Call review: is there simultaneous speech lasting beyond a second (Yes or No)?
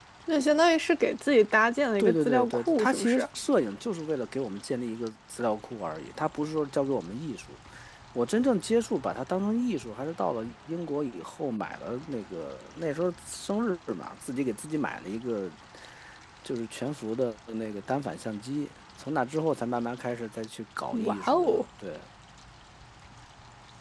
Yes